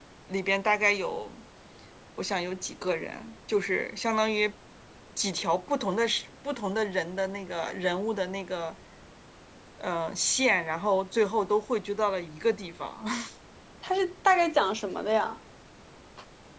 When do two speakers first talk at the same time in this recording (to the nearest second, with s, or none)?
none